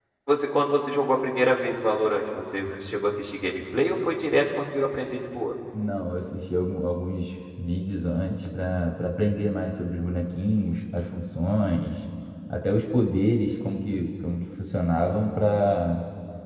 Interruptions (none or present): none